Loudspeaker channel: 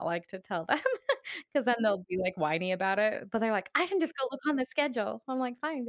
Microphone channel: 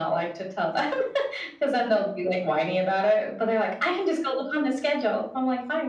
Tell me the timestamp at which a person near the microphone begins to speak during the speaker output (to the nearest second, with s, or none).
none